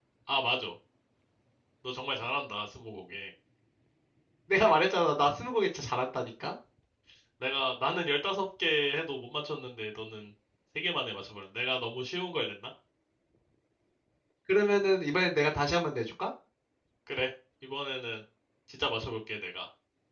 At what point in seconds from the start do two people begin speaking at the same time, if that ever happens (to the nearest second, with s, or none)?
none